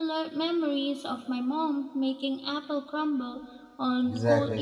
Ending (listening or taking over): taking over